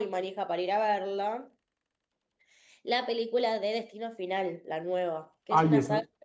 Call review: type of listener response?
taking over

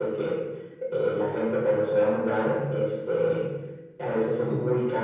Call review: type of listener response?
listening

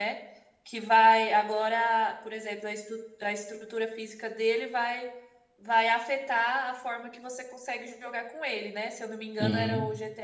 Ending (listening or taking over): listening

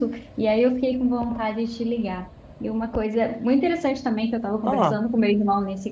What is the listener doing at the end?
listening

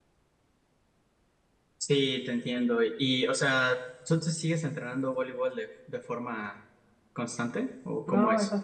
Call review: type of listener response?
taking over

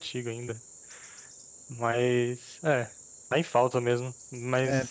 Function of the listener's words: taking over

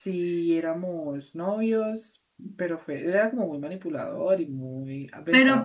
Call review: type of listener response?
taking over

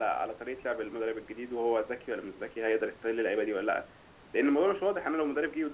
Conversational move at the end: listening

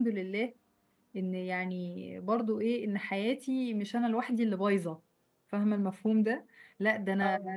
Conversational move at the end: listening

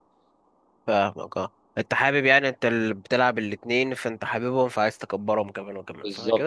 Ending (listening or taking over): taking over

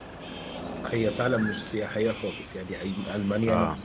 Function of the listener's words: listening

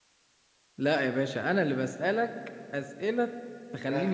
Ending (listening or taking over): taking over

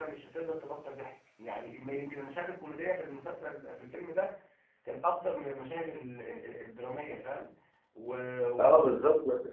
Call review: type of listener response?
taking over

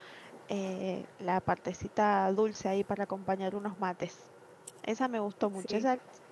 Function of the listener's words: listening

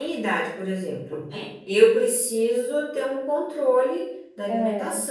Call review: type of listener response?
listening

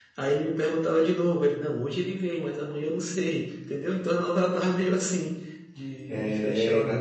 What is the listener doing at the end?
taking over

